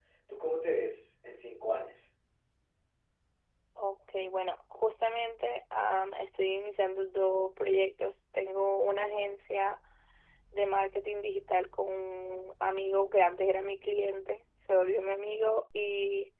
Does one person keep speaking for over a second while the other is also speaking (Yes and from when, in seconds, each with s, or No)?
No